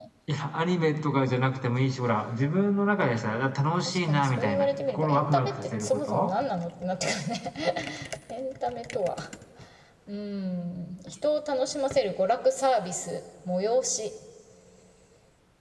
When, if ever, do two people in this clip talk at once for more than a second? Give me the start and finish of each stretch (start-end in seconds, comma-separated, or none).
3.9-6.3